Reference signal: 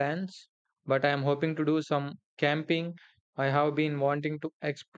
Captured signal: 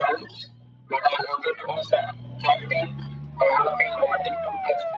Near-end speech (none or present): none